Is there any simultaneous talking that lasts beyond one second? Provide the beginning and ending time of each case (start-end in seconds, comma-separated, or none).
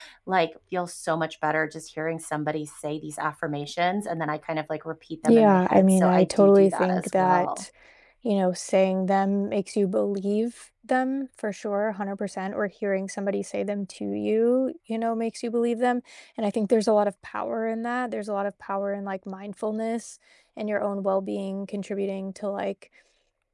5.2-7.6